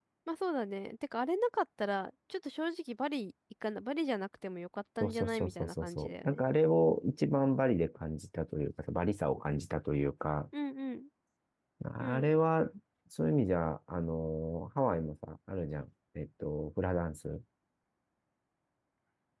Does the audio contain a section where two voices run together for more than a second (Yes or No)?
Yes